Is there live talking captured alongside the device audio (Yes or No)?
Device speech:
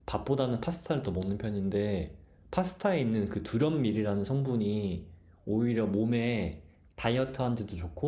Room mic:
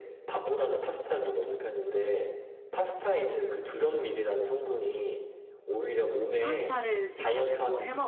Yes